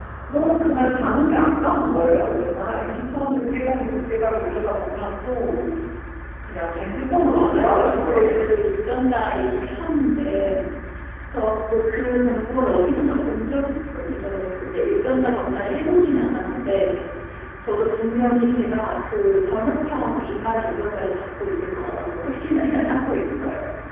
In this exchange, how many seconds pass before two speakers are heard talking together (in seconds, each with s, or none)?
7.3 s